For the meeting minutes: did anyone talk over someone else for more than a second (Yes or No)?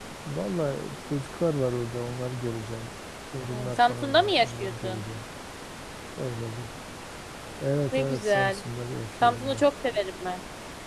Yes